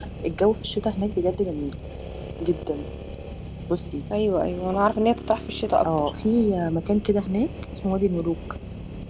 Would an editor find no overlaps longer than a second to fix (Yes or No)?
Yes